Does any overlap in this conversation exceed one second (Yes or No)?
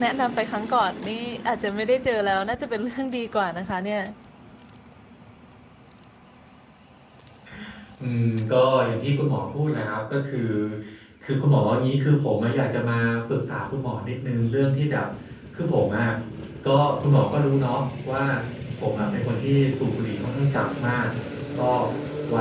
No